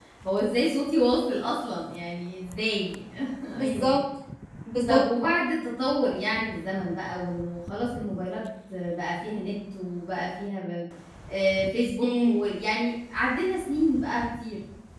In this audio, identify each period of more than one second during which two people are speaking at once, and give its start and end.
none

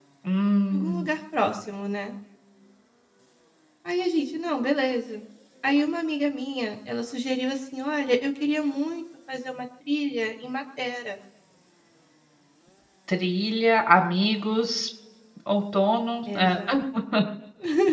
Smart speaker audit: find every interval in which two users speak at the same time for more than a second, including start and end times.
none

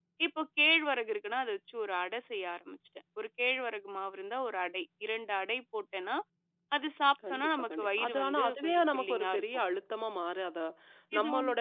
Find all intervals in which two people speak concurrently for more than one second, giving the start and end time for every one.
7.3-9.4

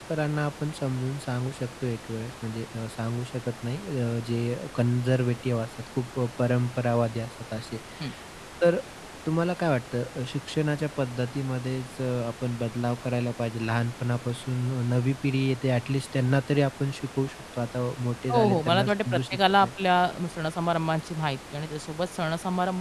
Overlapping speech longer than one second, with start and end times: 18.3-19.7

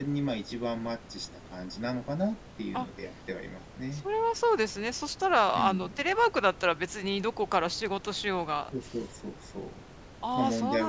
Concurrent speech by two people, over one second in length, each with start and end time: none

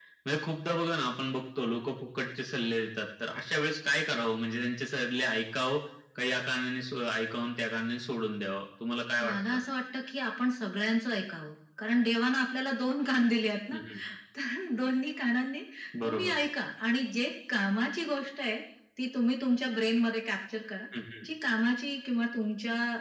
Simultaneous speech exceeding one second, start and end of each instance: none

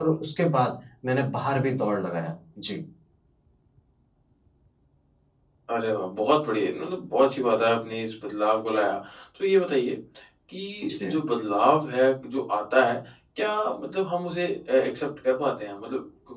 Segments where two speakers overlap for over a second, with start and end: none

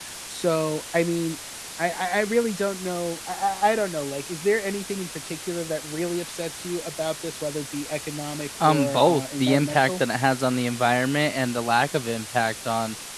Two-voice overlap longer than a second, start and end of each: 8.6-10.0

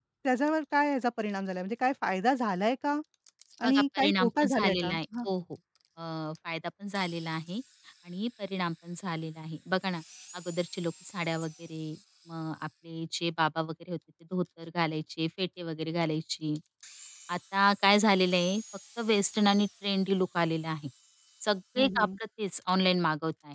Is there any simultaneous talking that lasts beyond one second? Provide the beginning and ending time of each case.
3.6-5.0

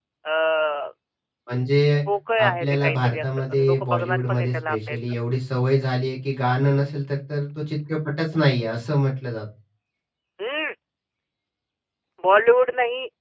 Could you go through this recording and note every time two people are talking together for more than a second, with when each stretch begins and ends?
2.4-5.0

